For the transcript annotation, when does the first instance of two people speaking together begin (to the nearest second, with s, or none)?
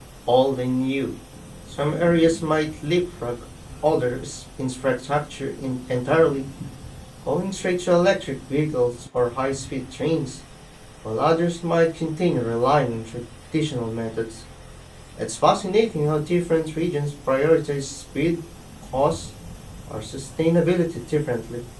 none